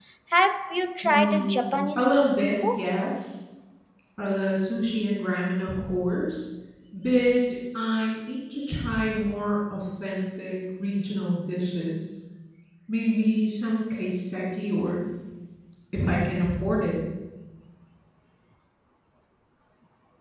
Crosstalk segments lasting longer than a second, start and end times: 1.0-2.9

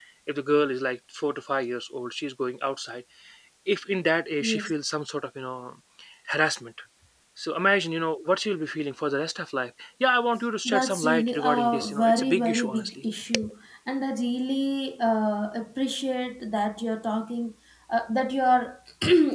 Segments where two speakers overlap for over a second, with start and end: 10.6-12.9

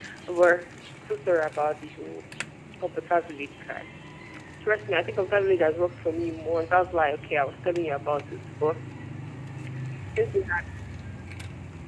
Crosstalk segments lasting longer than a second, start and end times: none

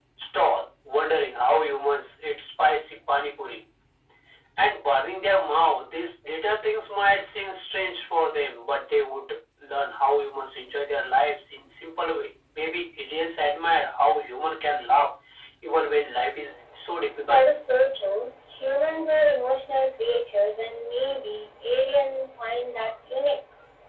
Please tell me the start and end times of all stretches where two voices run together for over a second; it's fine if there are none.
none

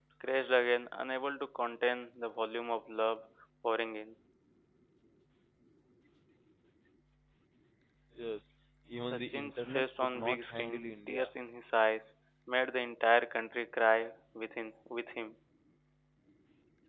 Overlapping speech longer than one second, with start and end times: 9.0-11.3

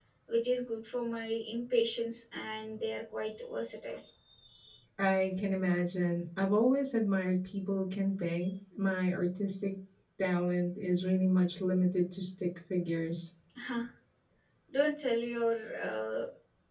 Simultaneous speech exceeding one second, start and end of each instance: none

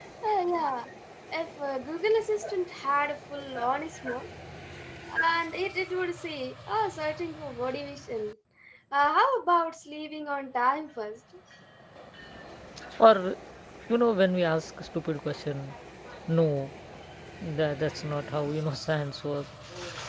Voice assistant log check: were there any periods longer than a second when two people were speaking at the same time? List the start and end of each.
none

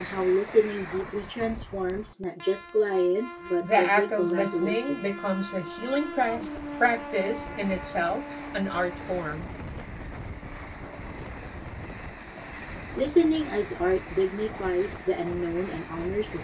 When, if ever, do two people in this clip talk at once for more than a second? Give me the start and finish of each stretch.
3.6-5.1

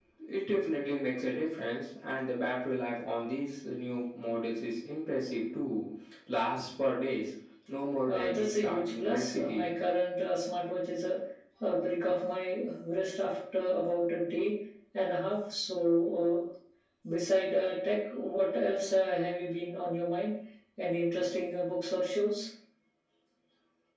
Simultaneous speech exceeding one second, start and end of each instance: 8.1-9.7

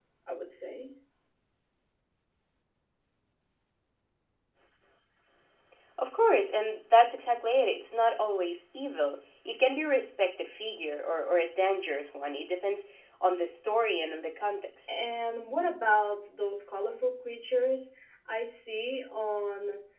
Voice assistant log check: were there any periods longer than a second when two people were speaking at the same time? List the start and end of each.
none

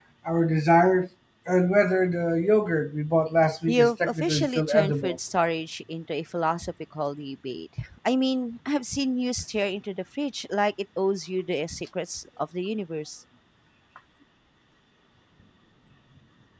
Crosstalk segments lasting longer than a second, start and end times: 3.7-5.2

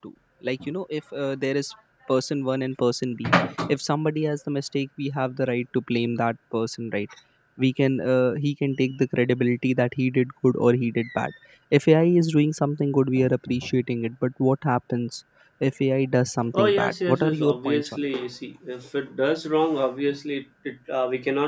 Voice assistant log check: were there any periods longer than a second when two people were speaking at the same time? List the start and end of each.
16.5-18.1

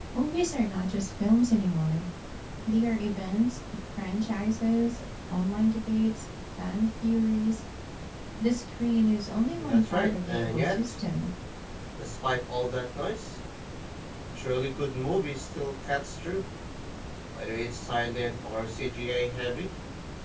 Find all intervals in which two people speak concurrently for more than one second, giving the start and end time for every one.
9.5-11.0

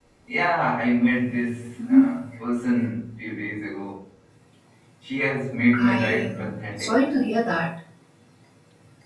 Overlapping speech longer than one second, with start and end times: 5.8-7.0

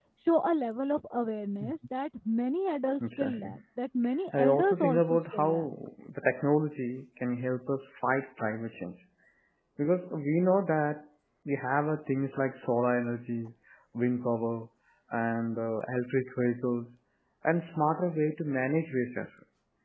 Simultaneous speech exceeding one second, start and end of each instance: 4.3-5.7

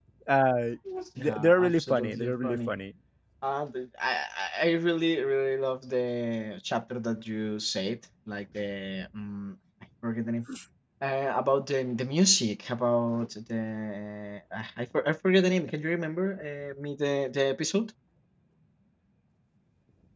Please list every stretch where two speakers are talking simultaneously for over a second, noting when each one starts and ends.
1.2-2.7

